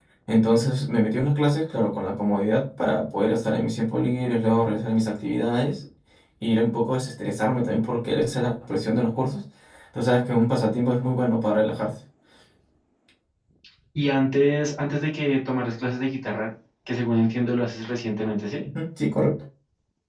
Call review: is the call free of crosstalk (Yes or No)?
Yes